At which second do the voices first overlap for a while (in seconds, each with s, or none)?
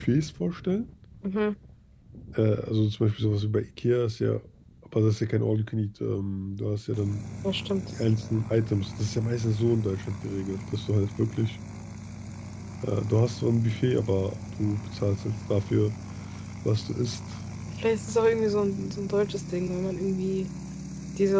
none